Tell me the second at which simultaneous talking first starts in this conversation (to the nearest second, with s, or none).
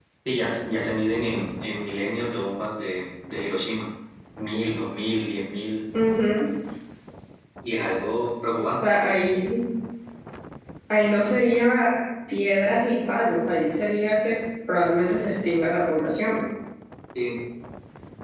none